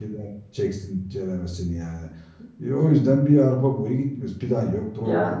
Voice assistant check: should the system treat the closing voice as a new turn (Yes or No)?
No